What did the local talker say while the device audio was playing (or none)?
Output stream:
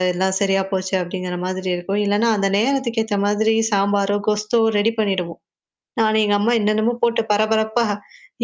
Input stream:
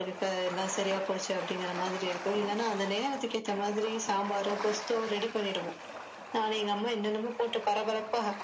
none